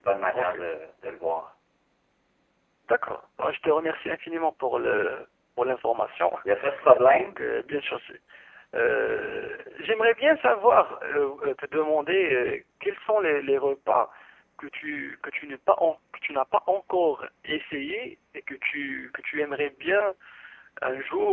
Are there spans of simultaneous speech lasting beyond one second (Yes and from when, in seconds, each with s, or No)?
No